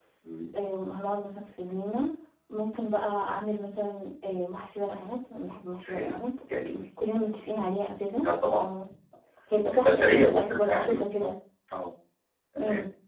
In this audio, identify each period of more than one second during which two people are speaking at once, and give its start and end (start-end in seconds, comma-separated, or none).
9.8-11.3